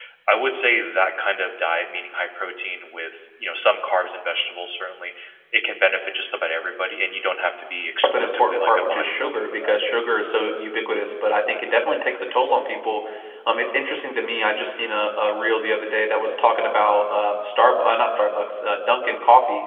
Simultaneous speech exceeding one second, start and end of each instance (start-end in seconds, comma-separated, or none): 8.0-9.8